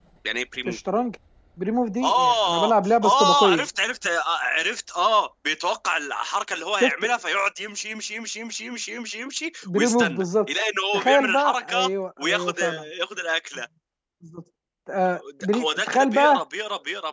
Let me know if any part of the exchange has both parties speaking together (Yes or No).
Yes